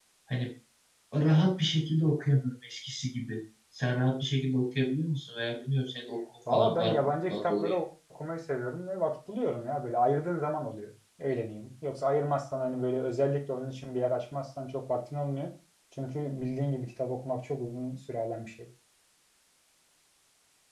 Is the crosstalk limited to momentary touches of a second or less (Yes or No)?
No